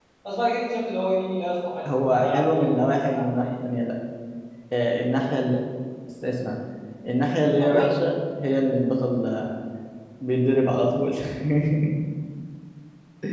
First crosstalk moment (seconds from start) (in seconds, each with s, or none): 1.8 s